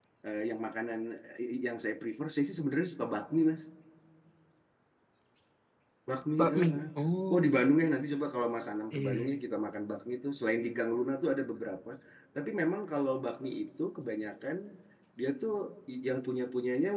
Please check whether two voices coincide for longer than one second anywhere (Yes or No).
No